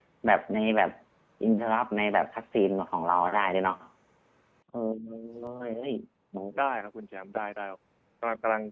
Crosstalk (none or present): none